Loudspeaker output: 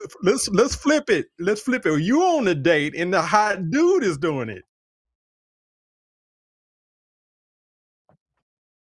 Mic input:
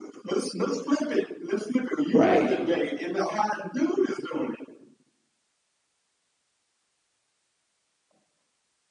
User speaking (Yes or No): Yes